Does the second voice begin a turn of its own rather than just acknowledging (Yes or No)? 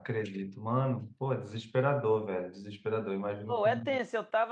Yes